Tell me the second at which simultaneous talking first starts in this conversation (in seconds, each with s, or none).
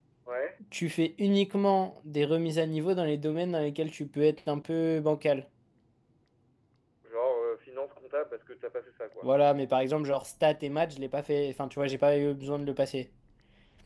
none